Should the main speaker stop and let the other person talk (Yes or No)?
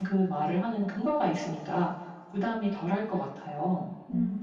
Yes